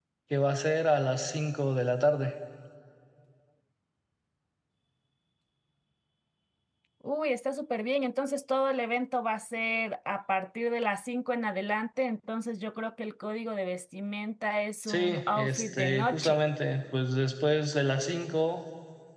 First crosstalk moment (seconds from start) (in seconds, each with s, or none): 14.9 s